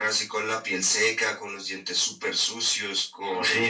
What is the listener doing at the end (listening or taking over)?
taking over